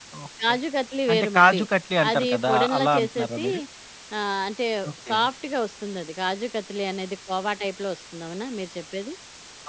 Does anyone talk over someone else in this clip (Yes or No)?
Yes